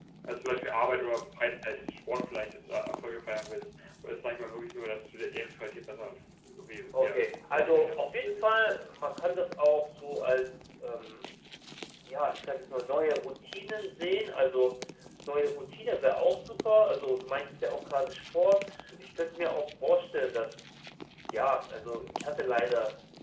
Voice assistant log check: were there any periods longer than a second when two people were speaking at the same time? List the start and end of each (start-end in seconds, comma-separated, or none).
6.9-8.5